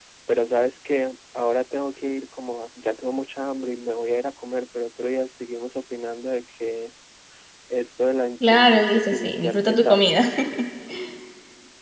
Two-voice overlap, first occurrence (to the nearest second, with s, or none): 9 s